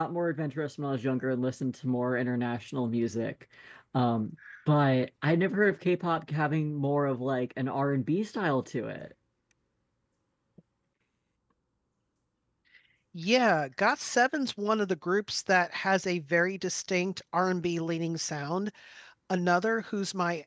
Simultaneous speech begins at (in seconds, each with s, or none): none